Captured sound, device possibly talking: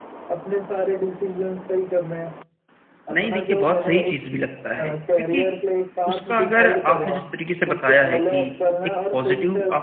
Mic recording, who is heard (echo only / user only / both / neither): both